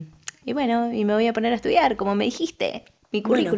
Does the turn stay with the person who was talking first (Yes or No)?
No